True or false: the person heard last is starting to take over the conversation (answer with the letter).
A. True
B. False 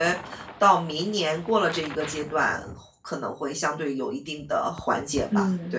A